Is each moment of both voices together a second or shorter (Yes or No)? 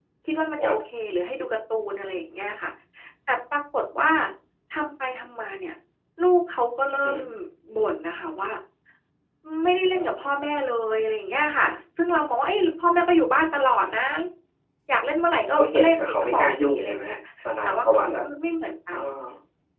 No